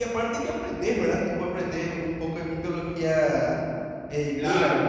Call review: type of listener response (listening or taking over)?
taking over